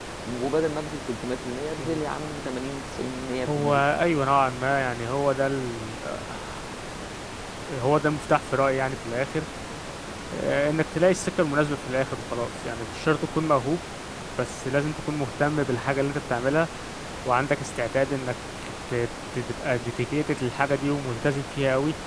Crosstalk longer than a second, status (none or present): none